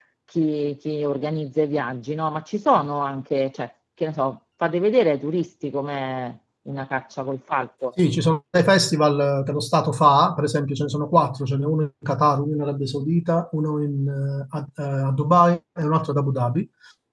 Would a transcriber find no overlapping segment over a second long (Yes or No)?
Yes